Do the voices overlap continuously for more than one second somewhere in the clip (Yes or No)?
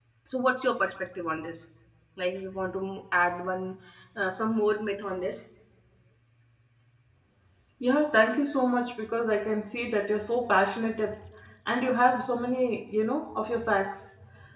No